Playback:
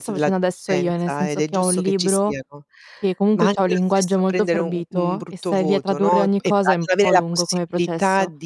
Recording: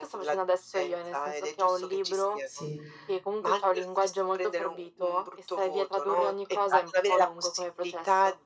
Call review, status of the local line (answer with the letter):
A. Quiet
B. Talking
B